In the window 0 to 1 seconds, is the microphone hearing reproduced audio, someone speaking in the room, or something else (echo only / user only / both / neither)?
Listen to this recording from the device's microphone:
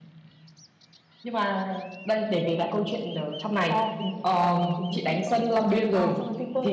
neither